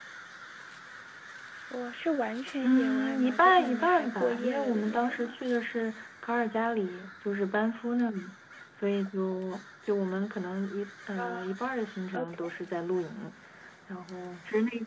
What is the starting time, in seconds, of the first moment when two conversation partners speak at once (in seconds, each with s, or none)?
2.6 s